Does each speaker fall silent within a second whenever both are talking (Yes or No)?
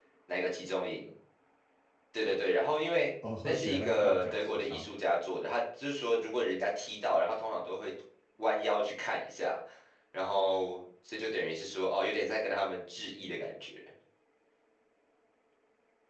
No